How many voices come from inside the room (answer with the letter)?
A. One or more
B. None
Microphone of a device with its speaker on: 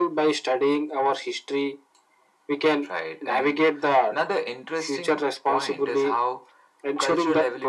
B